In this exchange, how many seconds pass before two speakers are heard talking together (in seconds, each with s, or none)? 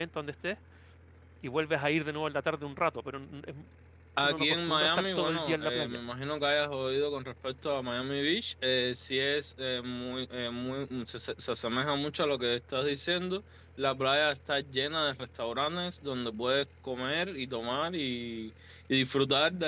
4.2 s